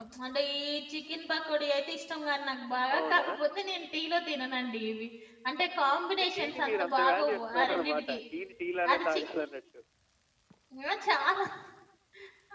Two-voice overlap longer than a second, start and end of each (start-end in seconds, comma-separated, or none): 6.3-8.2